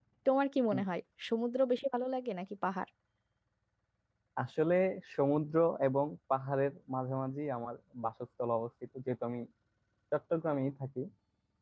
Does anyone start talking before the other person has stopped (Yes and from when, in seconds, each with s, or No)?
No